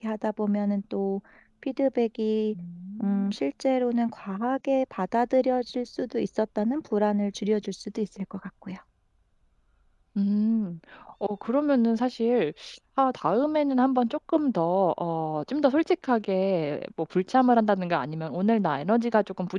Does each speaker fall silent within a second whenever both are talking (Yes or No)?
Yes